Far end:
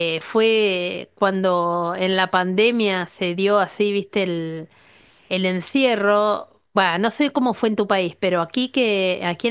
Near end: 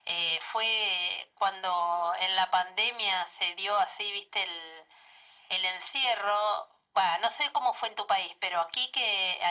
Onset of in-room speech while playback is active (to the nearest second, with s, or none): none